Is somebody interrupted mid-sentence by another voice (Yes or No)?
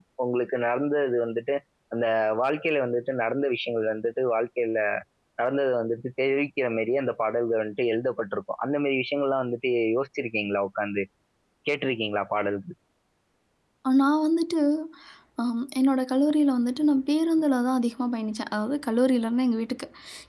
No